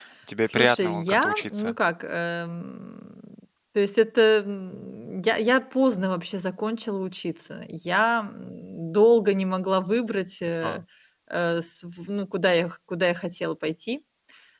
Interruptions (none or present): present